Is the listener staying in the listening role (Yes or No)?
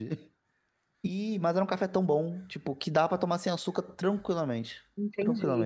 No